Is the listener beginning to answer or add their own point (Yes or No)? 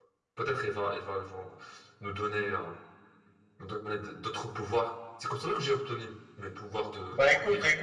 Yes